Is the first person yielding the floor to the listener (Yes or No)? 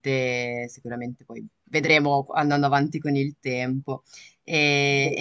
No